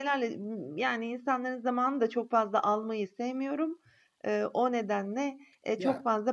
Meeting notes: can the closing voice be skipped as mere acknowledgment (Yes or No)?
Yes